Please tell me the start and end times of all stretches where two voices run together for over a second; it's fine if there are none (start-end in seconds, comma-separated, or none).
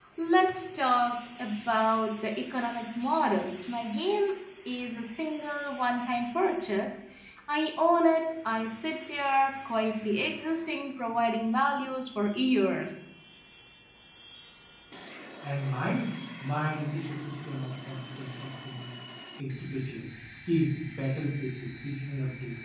none